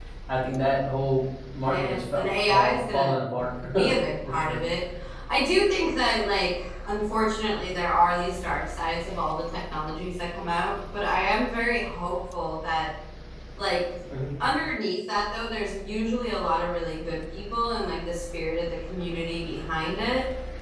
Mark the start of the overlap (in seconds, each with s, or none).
1.6 s